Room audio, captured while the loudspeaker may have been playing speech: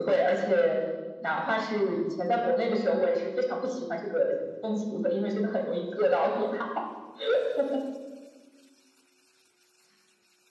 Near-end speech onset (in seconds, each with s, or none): none